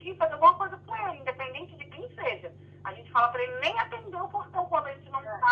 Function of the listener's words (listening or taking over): listening